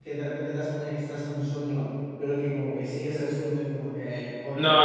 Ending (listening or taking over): taking over